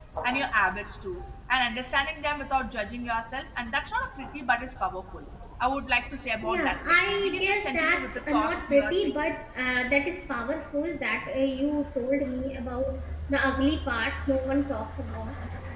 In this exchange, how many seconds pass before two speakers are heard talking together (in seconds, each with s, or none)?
6.4 s